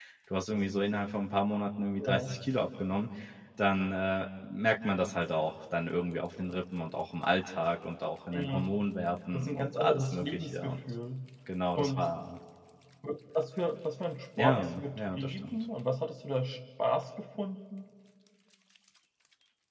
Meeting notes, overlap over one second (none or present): present